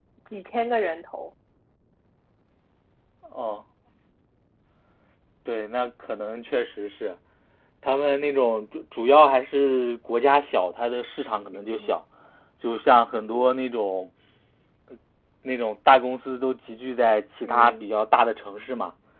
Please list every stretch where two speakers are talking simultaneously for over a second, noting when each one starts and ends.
none

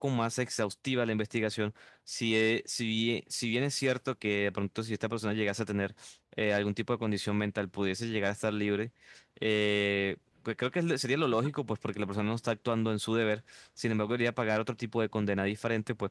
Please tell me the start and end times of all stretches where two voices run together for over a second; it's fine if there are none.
none

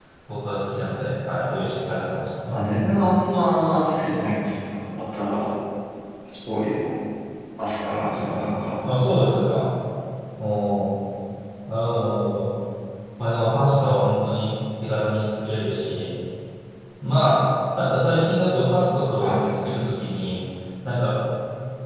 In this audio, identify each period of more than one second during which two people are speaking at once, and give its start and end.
none

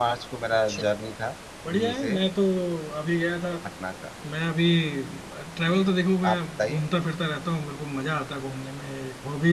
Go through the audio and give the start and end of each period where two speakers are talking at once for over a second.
none

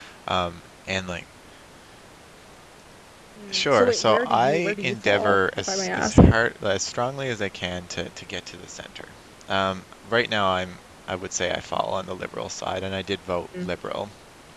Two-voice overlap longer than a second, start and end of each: 3.5-6.2

